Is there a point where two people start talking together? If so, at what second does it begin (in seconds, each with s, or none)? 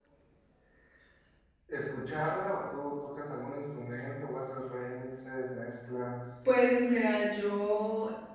none